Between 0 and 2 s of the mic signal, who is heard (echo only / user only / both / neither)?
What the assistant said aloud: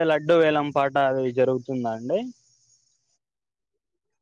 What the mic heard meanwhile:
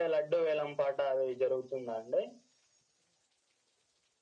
echo only